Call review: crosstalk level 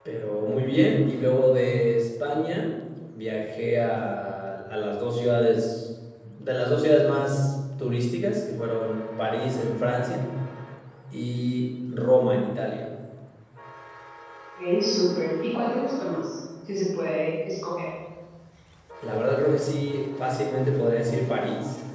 none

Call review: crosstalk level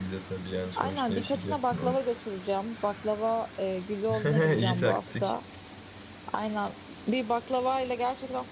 present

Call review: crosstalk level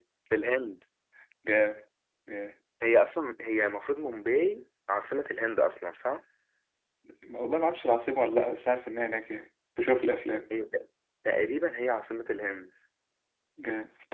none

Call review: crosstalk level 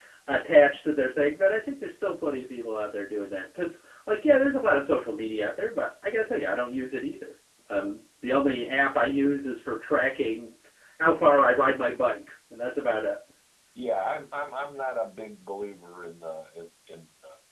none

